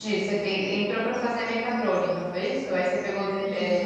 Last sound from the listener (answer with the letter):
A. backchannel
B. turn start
A